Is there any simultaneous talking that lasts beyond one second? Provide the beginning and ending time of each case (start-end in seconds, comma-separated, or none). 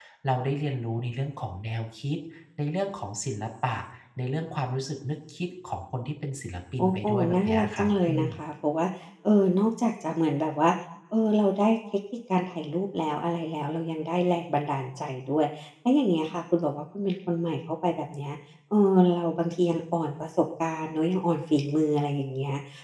6.8-8.3